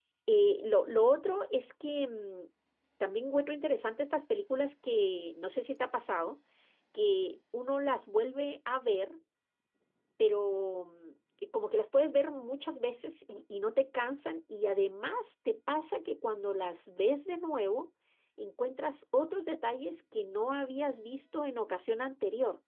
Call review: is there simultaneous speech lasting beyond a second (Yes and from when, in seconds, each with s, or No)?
No